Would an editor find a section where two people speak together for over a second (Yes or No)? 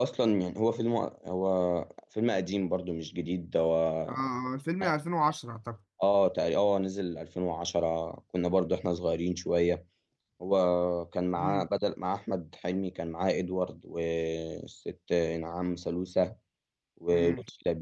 No